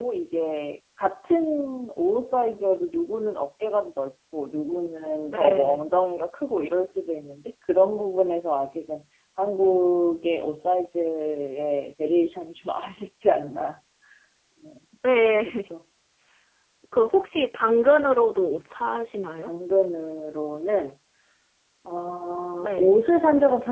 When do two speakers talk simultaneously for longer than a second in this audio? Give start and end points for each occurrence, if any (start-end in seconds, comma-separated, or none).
none